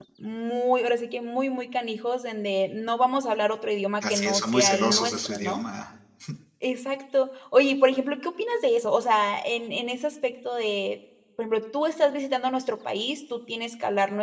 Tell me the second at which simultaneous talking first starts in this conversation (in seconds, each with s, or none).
4.0 s